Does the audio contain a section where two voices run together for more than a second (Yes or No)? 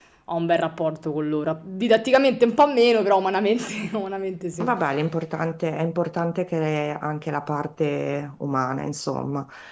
No